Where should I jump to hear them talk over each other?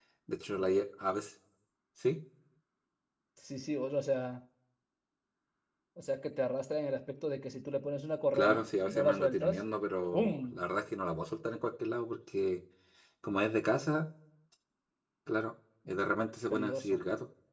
8.3 s

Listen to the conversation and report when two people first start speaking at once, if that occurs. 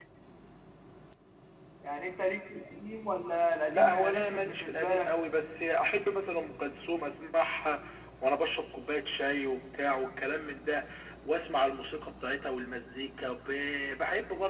3.7 s

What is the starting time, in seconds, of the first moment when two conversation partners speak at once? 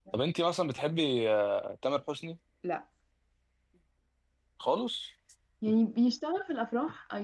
none

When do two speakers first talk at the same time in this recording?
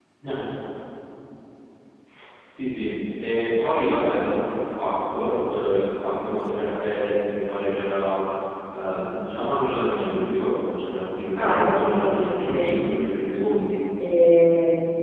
11.3 s

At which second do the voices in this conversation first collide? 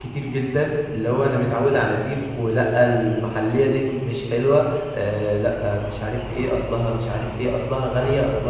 none

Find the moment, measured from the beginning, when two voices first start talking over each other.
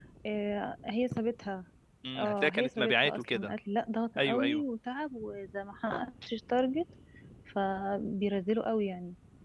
2.2 s

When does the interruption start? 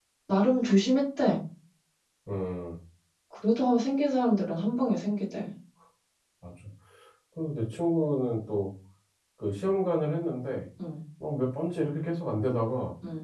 none

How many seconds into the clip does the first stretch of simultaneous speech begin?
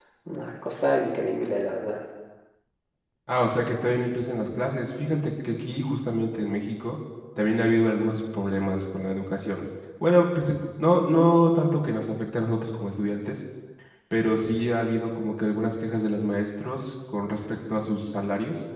none

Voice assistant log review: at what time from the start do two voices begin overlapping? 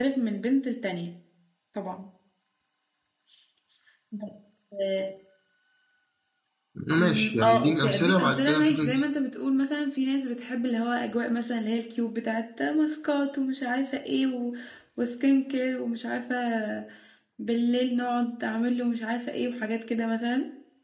7.0 s

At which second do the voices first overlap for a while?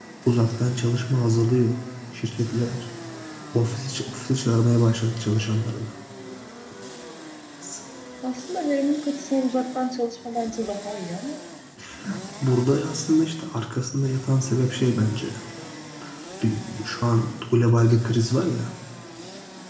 none

